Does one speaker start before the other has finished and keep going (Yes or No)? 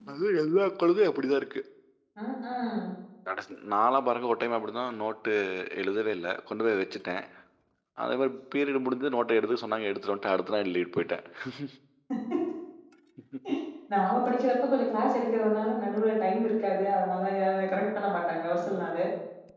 No